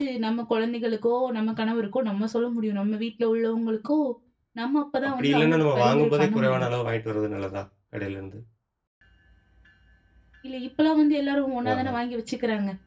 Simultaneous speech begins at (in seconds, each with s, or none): 5.1 s